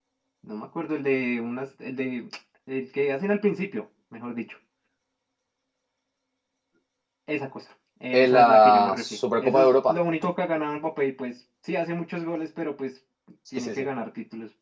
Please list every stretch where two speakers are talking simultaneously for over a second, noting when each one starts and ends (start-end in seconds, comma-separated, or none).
8.1-9.9